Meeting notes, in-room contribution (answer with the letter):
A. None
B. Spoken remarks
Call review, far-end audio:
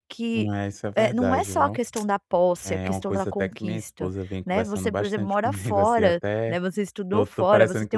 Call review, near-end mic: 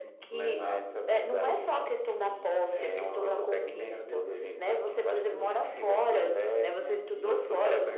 B